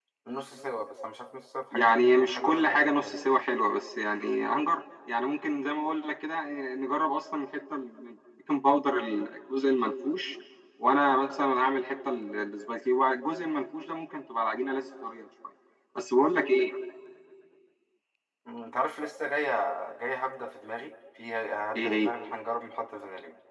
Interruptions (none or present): present